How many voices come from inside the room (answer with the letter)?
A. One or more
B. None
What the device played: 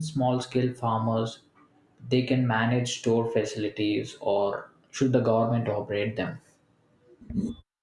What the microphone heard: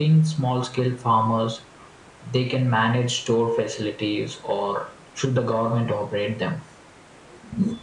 B